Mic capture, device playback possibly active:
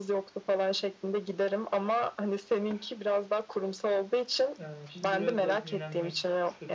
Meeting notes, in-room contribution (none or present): present